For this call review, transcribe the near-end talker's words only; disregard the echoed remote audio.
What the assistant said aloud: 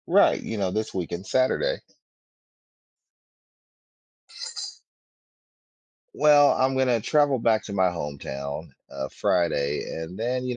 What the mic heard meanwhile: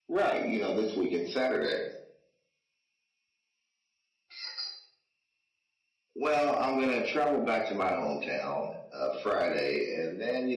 none

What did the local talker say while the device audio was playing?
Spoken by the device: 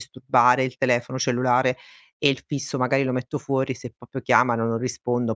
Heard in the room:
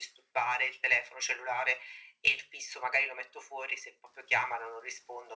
none

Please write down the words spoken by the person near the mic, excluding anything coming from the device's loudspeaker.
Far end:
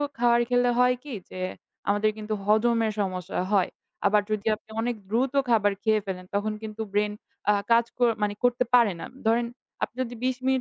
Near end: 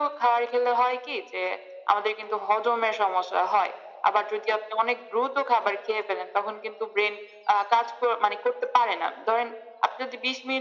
none

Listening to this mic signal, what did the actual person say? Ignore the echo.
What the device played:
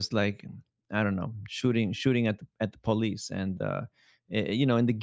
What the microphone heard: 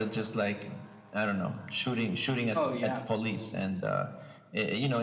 Oh, yeah.

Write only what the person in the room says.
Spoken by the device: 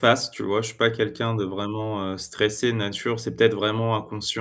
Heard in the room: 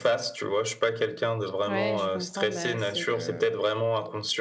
Ouais, je comprends, bah, c'est le

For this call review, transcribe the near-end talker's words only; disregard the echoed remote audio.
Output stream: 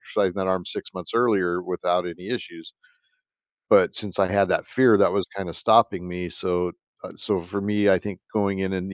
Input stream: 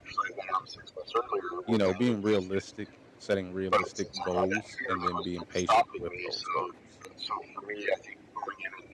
you know, being realistic, setting realistic goals and then being patient with those goals.

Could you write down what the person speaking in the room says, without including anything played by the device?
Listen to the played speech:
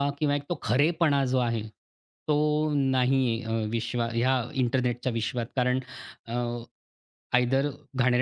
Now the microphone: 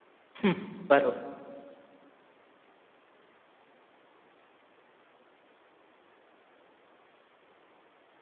हं. बरोबर.

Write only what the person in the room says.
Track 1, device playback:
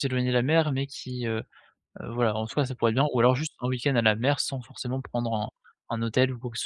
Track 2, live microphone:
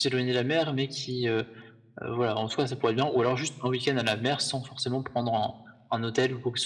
none

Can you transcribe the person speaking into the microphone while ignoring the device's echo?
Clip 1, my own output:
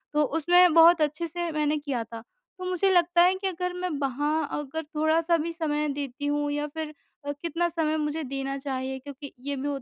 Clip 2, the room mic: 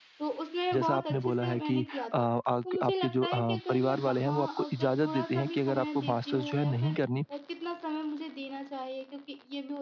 जैसा आपने बोला है कि अ, आक आपके जो अ, परिवार वाले हैं वो आपको इजाज़त देते हैं कि अगर आपको मास्टर्स जो है नहीं करनी,

